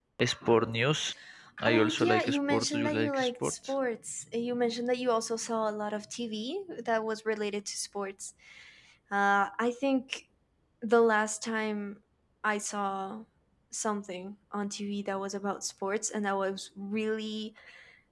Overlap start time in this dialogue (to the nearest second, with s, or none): 2 s